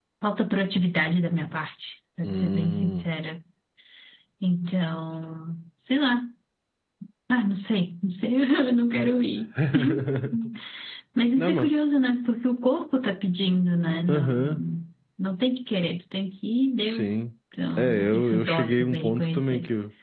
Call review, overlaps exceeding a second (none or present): present